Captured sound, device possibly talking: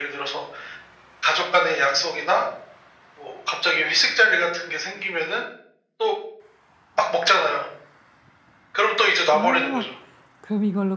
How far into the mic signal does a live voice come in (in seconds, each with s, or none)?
9.3 s